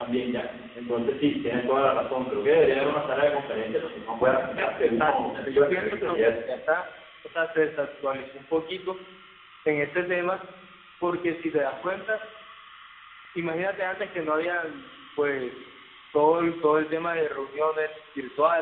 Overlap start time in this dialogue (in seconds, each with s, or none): 4.6 s